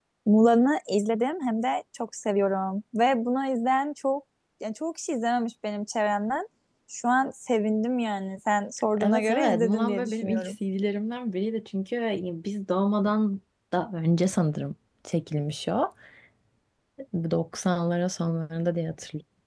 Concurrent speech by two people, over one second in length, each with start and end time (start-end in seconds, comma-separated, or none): 9.0-10.5